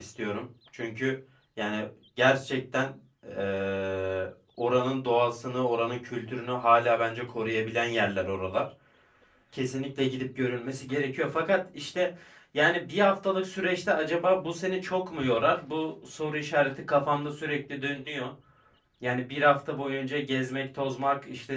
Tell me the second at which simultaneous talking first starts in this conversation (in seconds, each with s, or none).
none